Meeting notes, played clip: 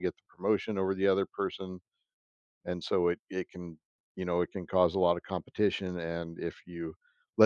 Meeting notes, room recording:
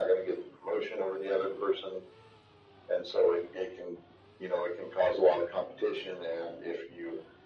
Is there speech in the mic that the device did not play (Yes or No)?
No